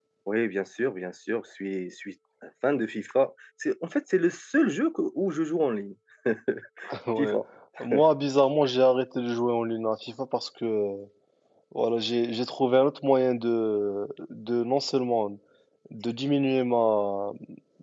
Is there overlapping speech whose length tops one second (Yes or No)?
No